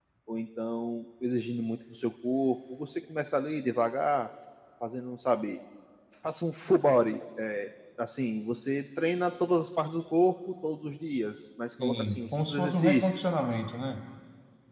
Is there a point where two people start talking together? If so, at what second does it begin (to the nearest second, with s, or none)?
12 s